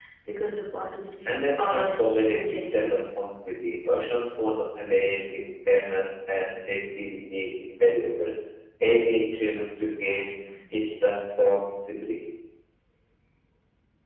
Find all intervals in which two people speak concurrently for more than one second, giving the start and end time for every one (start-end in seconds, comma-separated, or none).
1.3-3.1